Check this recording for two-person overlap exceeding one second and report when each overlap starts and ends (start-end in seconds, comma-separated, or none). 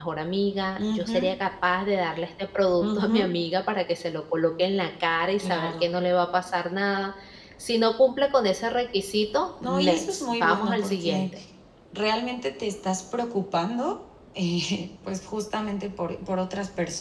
9.7-11.3